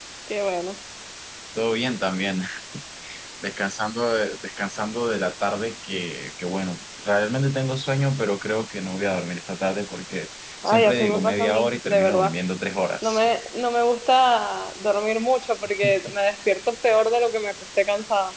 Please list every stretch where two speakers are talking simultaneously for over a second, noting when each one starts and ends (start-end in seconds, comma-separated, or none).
10.6-12.3